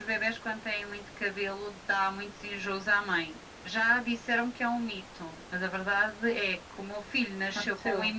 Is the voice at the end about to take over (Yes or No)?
No